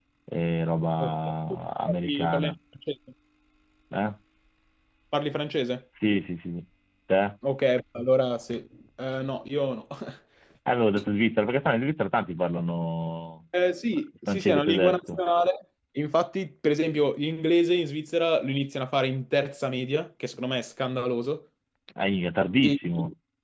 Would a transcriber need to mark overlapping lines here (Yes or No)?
Yes